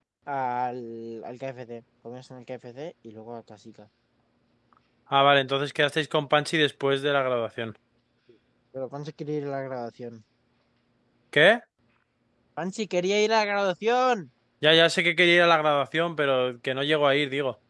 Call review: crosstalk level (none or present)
none